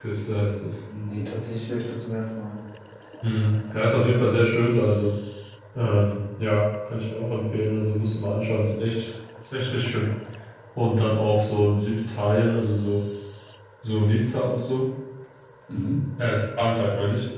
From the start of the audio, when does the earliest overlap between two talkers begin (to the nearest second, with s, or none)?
none